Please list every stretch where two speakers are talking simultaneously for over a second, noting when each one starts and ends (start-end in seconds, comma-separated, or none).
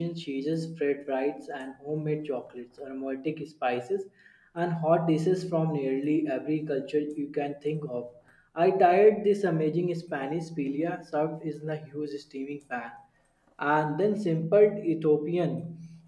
none